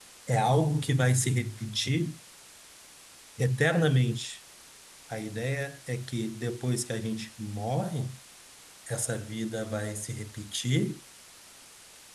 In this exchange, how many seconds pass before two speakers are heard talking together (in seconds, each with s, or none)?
none